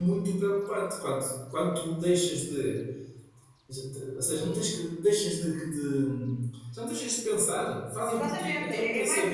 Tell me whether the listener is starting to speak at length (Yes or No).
Yes